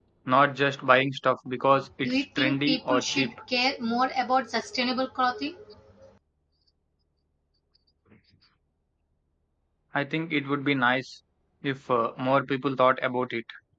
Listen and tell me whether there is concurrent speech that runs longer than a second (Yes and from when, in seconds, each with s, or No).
Yes, from 2.0 s